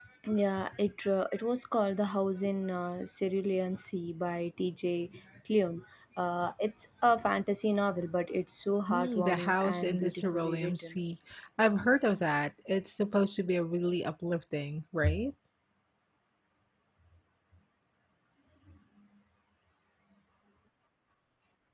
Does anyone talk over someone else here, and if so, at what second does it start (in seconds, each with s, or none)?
8.9 s